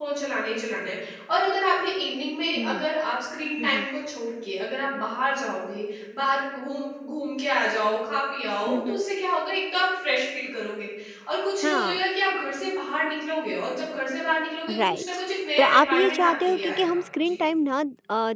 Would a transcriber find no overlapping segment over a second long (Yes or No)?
No